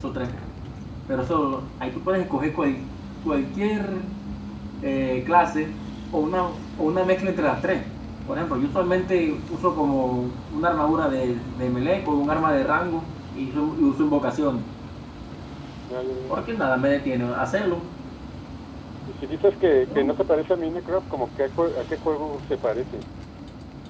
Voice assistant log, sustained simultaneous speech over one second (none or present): none